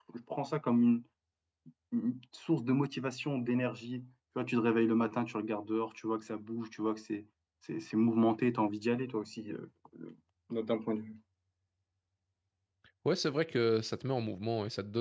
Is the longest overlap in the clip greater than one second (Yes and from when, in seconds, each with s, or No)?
No